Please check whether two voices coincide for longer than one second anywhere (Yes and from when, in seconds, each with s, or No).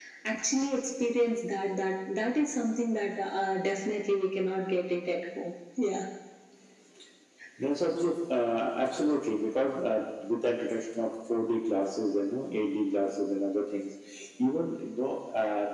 No